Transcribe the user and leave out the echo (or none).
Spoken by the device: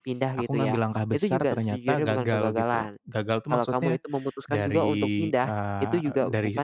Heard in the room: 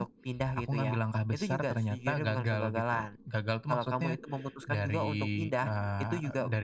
none